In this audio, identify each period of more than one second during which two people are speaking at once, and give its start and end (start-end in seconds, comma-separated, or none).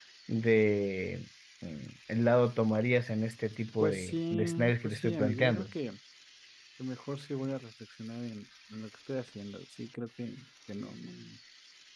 3.8-5.7